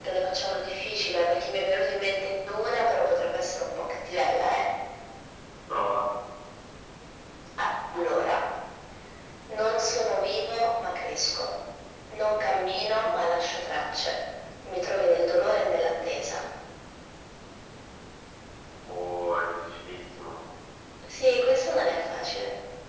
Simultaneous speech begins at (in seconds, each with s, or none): none